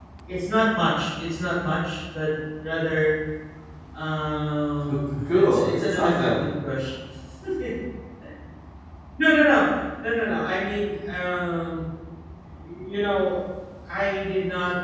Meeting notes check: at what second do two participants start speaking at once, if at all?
4.9 s

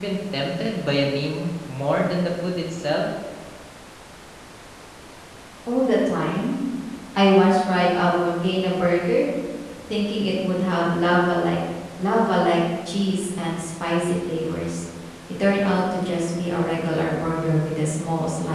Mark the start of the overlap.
none

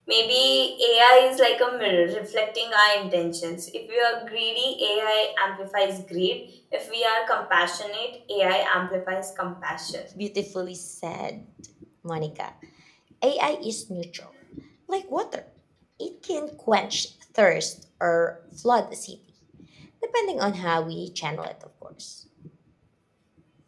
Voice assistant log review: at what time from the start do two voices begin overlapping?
none

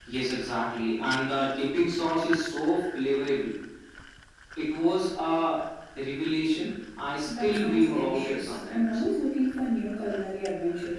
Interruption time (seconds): 7.3 s

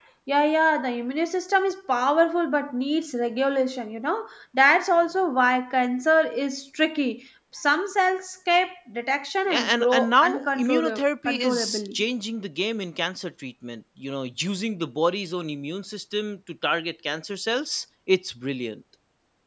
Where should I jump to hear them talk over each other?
9.5 s

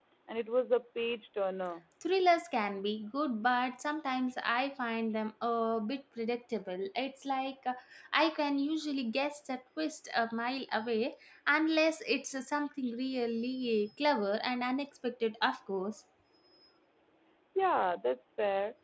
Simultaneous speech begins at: none

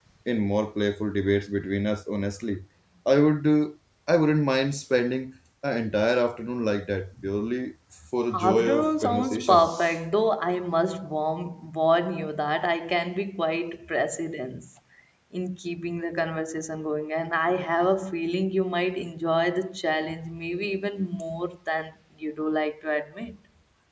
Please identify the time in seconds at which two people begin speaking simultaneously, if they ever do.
8.3 s

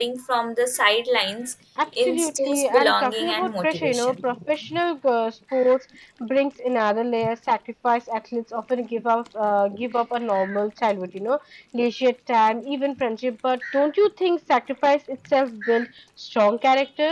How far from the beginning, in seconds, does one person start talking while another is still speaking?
2.0 s

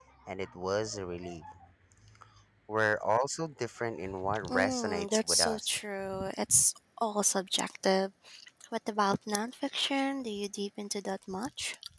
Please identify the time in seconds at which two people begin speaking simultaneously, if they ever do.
4.2 s

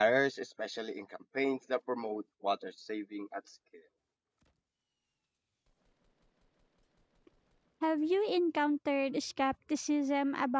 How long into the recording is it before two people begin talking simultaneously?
none

